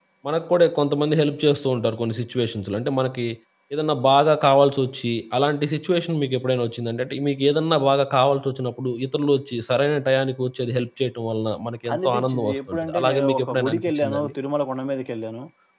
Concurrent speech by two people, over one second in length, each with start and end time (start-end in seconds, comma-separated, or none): 11.9-14.3